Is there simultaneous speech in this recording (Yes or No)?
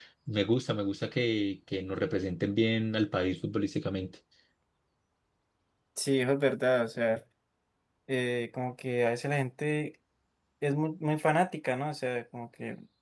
No